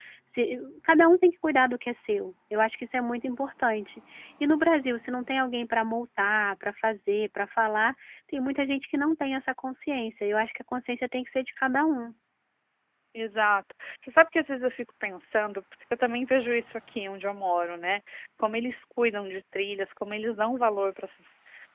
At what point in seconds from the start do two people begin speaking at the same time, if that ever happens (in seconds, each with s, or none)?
none